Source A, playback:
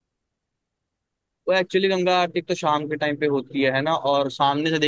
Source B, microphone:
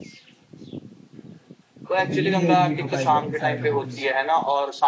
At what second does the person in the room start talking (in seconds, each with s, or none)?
2.0 s